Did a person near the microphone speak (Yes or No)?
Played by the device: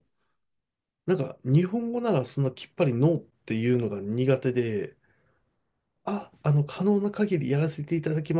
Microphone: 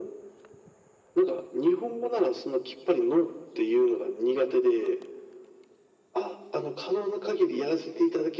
No